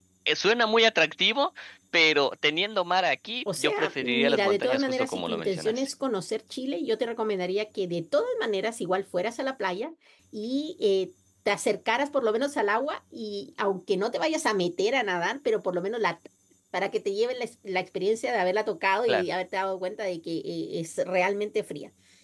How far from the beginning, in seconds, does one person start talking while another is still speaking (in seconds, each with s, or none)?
3.5 s